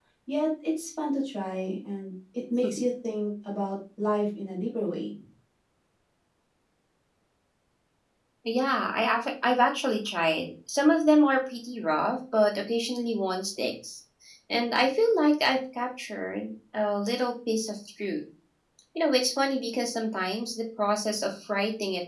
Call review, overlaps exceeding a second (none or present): none